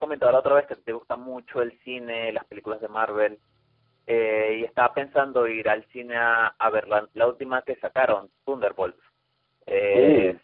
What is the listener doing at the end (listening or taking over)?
listening